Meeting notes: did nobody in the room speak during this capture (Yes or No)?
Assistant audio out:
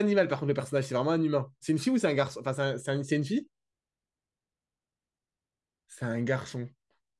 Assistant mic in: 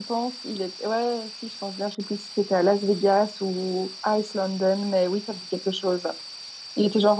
No